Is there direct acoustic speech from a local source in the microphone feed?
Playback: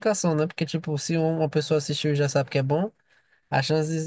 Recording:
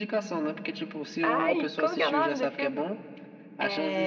Yes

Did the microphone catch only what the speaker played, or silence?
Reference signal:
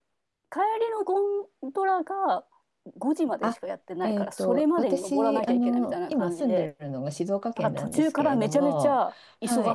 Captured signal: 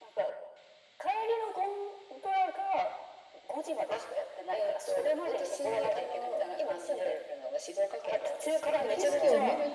No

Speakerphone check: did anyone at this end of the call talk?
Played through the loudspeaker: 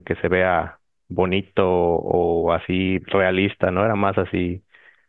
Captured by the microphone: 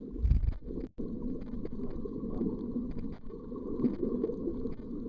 No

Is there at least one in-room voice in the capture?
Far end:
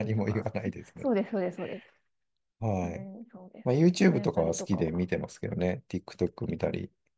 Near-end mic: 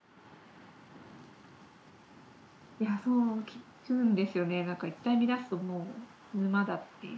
Yes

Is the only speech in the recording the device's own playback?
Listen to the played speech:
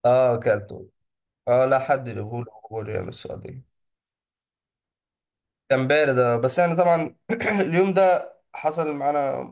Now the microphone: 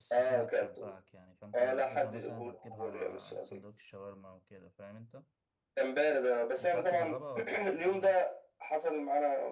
No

